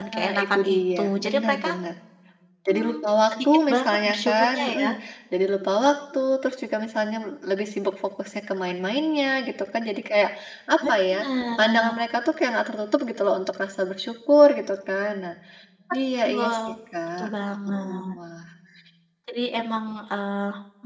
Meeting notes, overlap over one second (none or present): present